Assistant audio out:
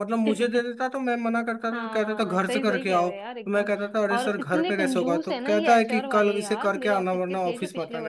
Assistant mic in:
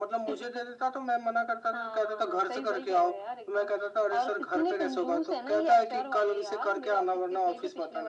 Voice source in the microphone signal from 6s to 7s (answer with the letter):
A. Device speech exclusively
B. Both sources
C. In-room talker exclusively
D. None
A